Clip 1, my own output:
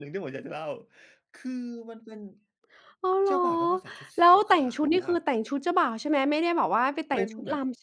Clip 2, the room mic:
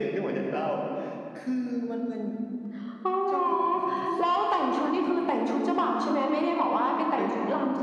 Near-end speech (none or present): present